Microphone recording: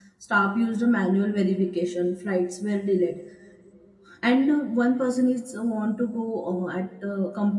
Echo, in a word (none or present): none